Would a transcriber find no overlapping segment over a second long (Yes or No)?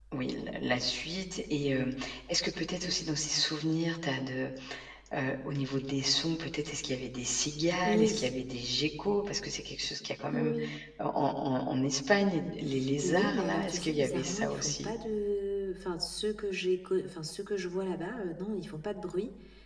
No